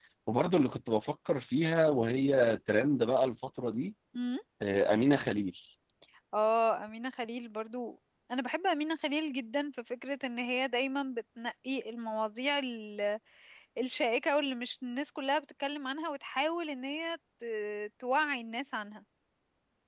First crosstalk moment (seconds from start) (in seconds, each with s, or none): none